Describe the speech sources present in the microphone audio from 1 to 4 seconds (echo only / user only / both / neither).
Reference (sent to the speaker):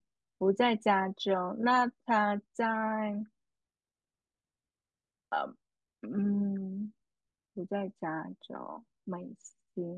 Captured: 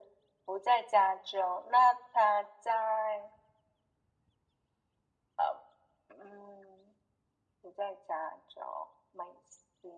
echo only